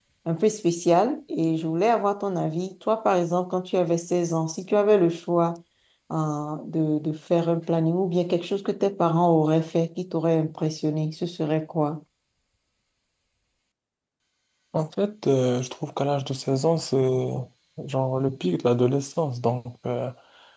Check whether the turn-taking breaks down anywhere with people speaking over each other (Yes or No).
No